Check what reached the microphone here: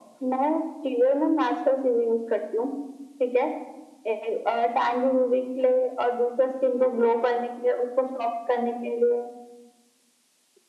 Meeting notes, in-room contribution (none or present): none